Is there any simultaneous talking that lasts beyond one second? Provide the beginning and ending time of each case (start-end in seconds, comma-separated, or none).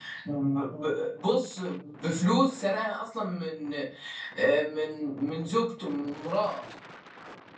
none